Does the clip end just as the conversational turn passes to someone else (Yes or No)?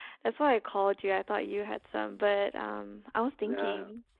No